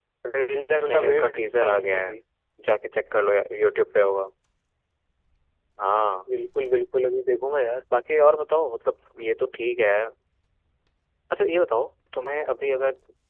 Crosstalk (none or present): present